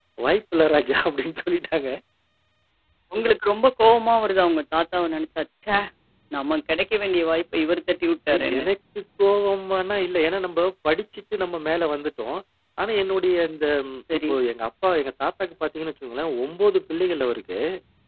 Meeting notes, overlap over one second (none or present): none